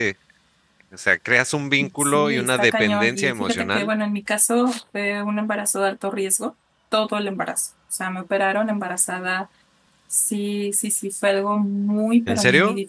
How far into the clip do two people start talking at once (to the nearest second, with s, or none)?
2 s